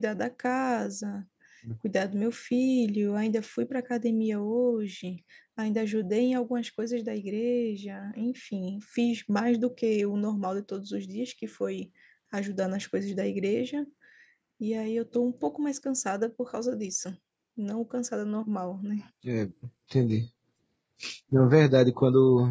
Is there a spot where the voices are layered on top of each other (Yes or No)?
No